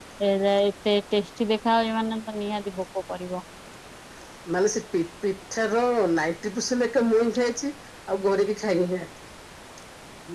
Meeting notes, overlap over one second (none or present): none